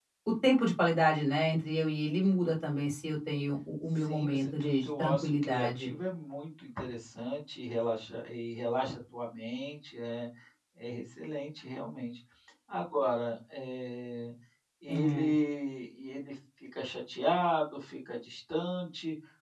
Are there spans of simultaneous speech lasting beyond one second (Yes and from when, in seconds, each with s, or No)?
Yes, from 4.0 s